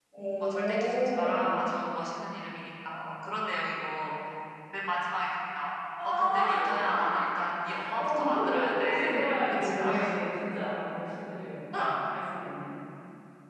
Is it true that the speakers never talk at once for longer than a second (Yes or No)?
No